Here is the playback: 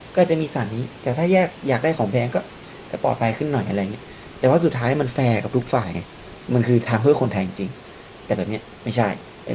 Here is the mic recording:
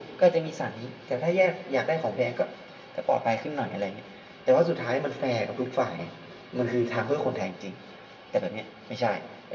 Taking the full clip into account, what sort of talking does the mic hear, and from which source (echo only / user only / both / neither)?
echo only